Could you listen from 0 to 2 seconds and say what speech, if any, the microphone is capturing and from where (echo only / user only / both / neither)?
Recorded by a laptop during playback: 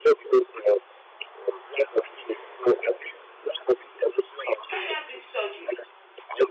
echo only